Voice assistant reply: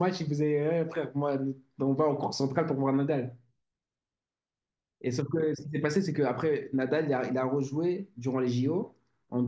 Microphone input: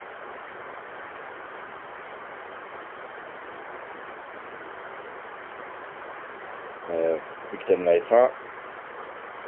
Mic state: user only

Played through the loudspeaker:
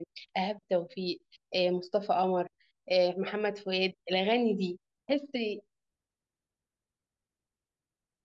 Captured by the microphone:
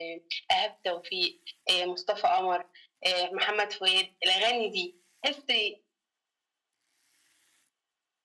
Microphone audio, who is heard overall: echo only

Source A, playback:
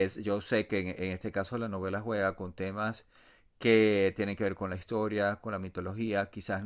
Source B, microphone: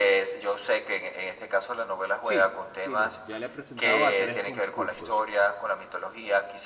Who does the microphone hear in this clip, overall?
both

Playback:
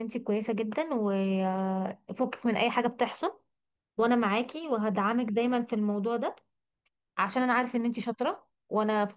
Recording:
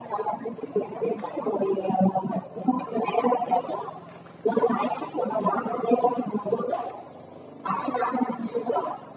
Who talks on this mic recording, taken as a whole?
echo only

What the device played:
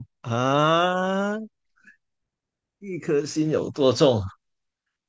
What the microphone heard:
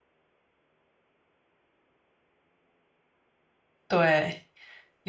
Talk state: user only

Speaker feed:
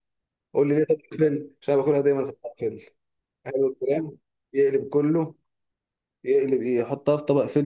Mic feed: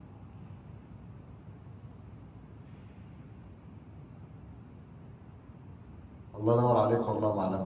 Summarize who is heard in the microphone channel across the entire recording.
user only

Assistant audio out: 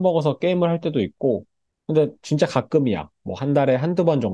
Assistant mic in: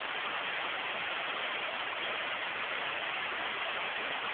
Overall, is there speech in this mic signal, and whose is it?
neither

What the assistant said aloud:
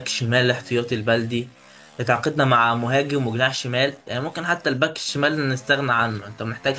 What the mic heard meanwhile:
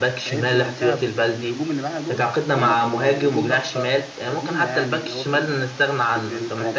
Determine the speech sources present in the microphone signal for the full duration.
both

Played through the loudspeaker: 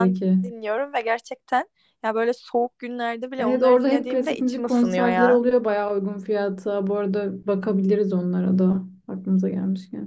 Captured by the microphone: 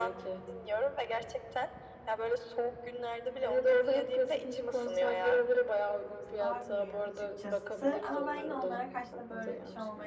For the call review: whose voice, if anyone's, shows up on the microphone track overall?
both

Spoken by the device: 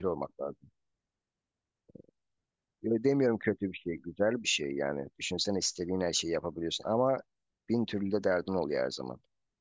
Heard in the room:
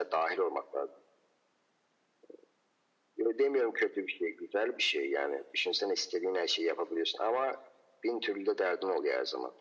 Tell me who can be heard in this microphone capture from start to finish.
echo only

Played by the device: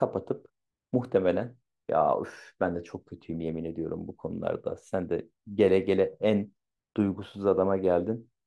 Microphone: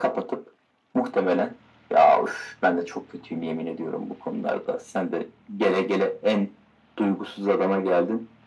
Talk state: echo only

